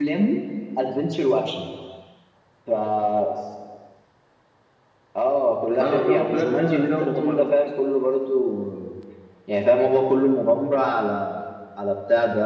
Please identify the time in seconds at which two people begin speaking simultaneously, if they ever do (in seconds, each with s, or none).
5.8 s